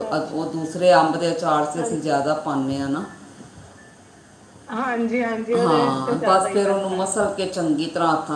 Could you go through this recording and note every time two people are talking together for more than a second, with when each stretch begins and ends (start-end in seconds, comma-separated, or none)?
5.6-7.1